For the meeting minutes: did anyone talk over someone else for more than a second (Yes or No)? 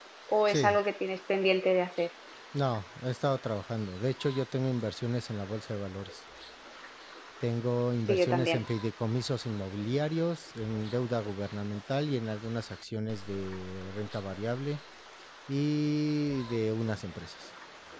No